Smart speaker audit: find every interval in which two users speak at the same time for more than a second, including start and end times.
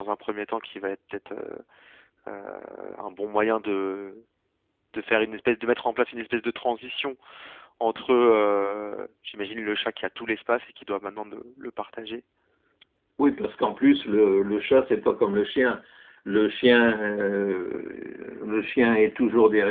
none

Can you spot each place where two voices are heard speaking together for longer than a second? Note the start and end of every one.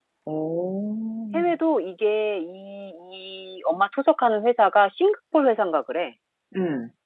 none

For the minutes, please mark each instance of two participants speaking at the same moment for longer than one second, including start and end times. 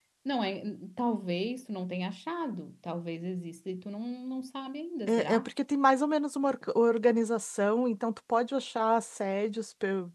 none

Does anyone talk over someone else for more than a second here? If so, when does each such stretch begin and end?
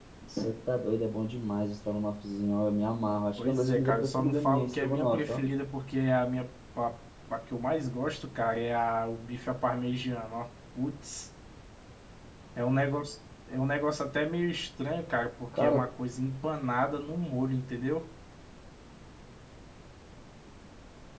3.4-5.4

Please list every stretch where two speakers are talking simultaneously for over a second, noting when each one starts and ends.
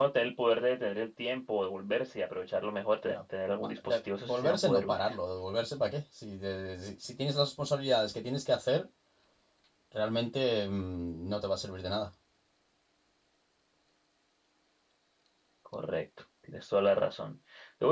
3.6-5.1

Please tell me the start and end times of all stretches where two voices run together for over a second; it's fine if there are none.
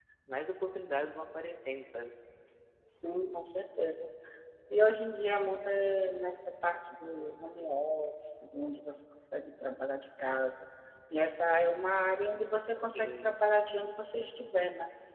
none

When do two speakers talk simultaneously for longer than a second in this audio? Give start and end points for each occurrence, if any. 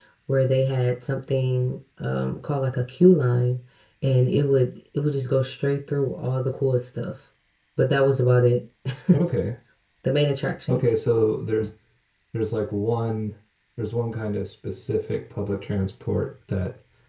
none

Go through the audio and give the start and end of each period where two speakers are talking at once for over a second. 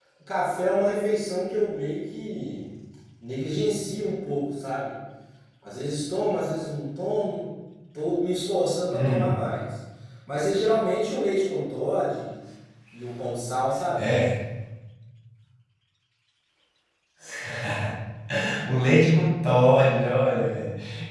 none

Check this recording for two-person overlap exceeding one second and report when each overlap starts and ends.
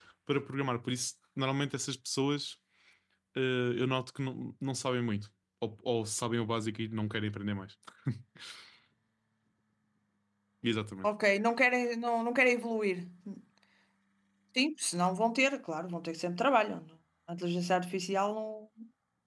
none

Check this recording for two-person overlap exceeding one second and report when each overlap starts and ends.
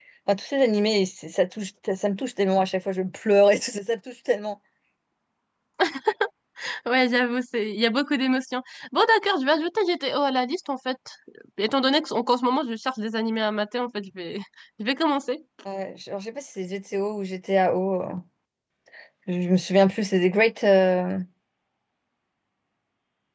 none

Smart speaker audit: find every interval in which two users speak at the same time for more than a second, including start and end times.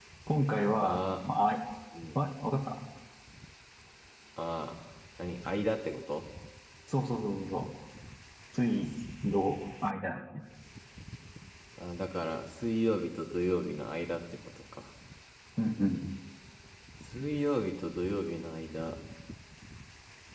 none

